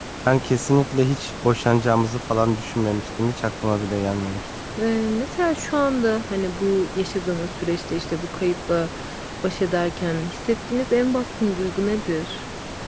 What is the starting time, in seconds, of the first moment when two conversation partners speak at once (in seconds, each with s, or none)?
none